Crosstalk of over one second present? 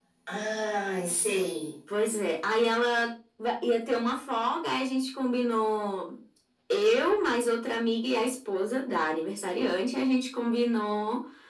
No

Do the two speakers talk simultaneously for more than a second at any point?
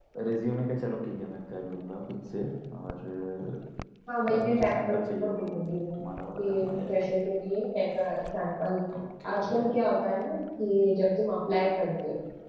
Yes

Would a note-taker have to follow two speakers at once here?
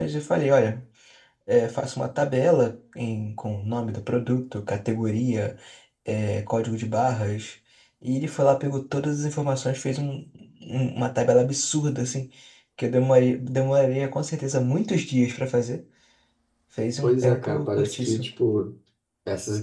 Yes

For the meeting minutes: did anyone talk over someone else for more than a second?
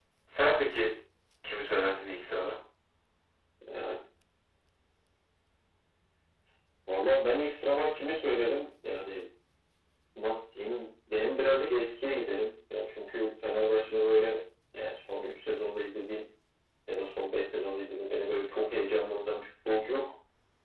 No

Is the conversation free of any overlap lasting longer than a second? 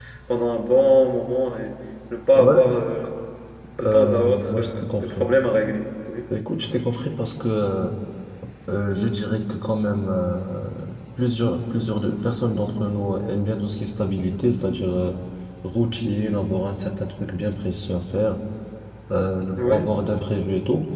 No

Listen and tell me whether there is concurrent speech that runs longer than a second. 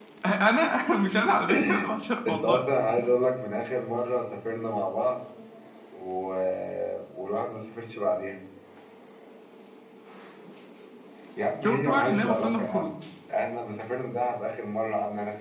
Yes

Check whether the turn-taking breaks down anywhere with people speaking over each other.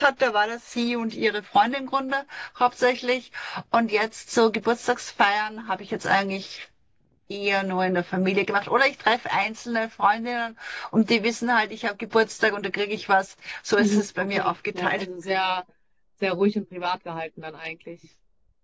Yes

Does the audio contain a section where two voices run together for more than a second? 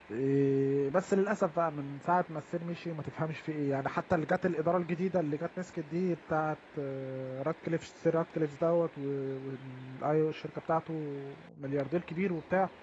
No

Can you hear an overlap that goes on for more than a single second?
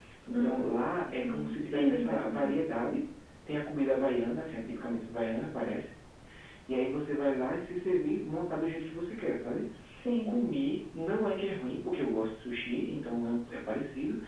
Yes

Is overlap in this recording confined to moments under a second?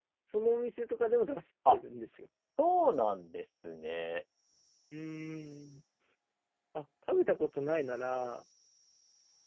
Yes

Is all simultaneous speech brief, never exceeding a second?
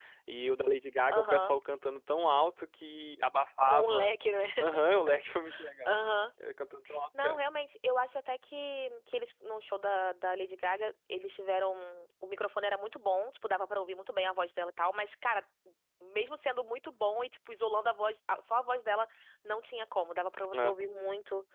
Yes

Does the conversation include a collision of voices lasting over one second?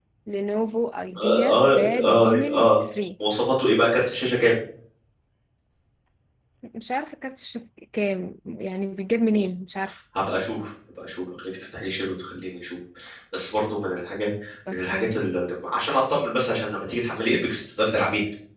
Yes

